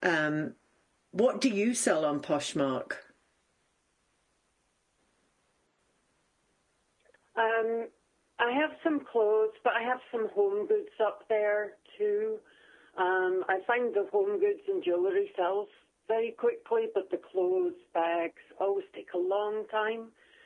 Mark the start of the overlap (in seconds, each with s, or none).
none